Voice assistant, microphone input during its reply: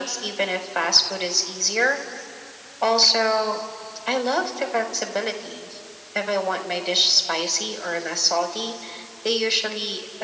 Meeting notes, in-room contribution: none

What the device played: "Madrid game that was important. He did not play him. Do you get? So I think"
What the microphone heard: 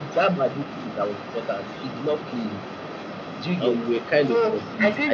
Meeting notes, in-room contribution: present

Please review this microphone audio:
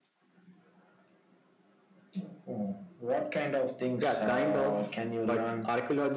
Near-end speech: present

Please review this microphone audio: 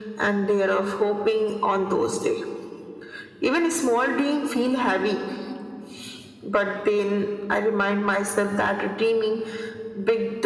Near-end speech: none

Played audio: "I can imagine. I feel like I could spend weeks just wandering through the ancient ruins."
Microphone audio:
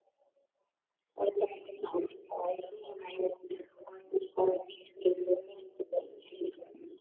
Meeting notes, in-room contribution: none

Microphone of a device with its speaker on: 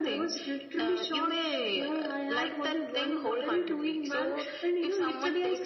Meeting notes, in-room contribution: none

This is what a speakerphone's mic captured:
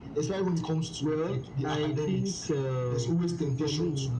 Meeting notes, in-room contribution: none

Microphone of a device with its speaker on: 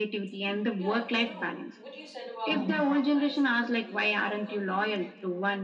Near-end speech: present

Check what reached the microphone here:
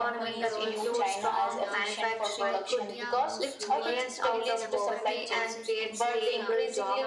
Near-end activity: present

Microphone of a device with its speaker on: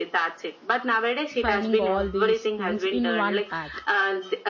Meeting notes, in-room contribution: present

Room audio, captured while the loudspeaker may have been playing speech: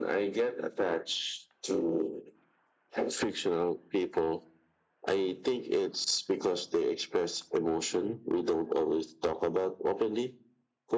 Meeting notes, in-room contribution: none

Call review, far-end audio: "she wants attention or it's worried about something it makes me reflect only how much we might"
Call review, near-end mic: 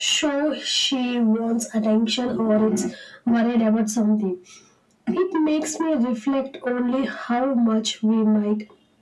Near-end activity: none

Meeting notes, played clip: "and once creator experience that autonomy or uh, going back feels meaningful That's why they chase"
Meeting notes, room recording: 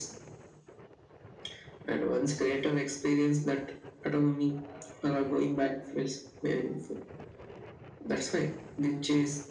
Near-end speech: none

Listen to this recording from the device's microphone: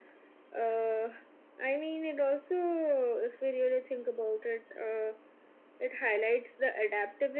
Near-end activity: none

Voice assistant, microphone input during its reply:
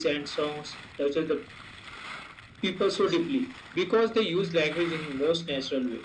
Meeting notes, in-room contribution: none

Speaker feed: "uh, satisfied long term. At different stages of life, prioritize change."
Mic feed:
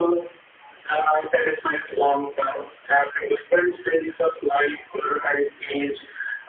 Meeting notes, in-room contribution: none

